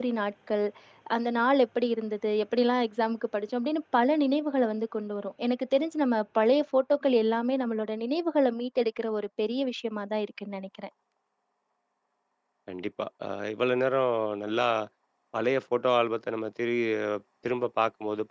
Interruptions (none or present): none